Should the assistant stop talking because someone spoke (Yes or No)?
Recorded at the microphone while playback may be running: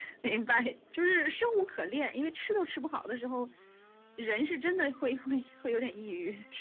No